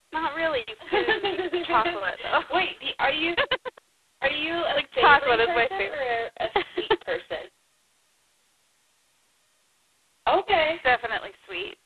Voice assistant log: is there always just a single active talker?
No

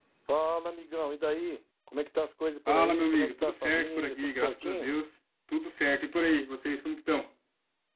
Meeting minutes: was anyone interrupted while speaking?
Yes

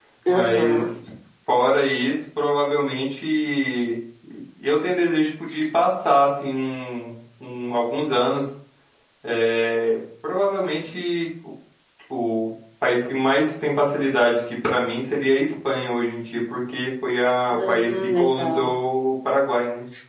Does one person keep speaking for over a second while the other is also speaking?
Yes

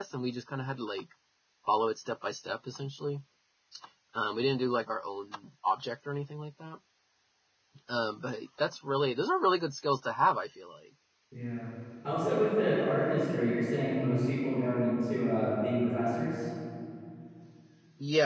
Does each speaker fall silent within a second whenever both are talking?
Yes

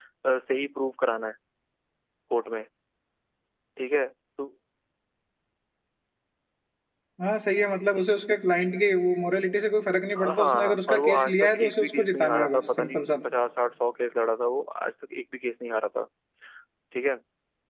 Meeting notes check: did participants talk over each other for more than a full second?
Yes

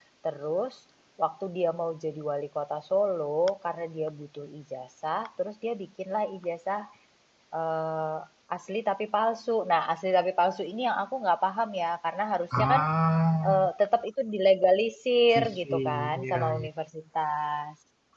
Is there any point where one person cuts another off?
Yes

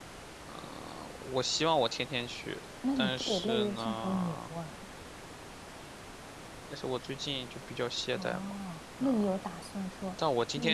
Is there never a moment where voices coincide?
No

